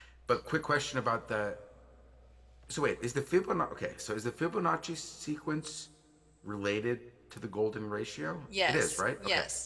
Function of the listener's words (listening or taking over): taking over